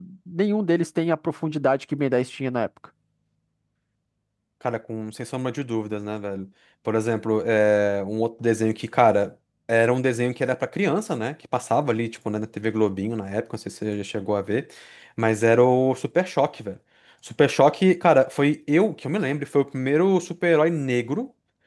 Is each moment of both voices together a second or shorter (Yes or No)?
Yes